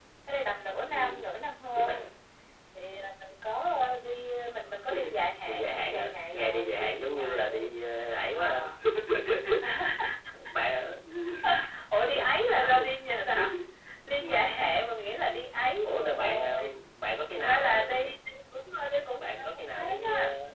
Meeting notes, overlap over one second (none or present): present